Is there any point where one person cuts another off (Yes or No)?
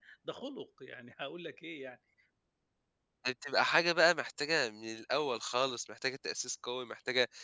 No